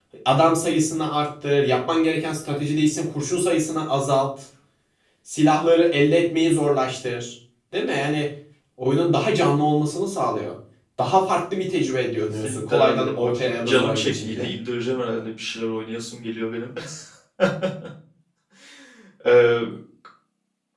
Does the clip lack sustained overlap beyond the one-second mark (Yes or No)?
No